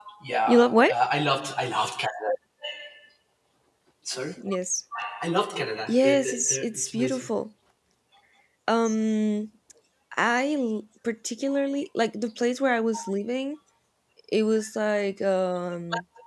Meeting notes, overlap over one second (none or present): present